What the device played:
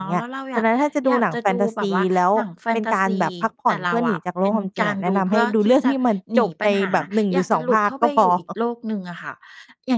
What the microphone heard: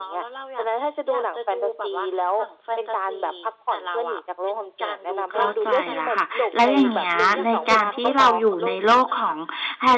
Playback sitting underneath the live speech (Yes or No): Yes